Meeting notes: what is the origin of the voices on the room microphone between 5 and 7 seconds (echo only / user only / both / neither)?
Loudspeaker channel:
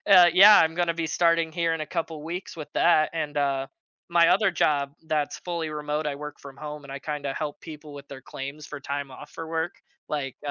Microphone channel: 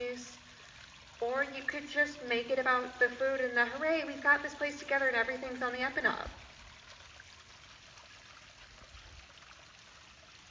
user only